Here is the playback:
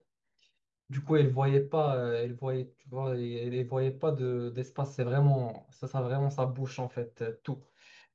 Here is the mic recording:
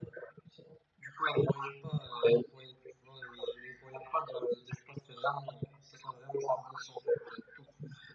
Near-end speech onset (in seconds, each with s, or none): none